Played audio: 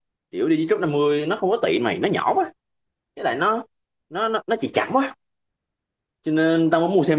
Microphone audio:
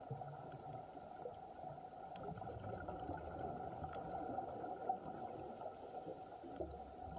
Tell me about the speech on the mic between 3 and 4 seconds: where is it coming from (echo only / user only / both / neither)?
neither